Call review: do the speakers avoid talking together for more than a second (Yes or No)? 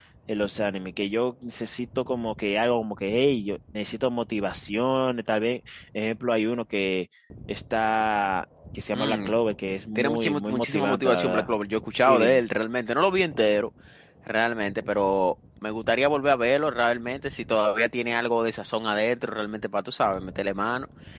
No